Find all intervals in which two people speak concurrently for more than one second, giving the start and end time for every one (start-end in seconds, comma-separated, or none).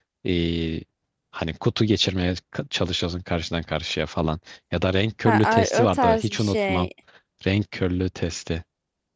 5.2-6.9